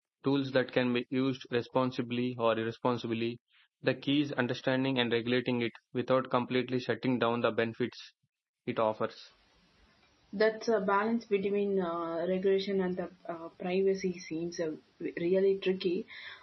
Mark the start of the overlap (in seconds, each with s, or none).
none